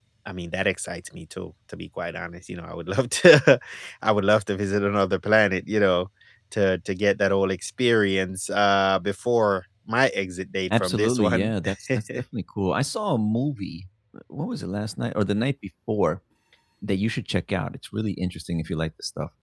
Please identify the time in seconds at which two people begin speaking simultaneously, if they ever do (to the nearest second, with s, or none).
11 s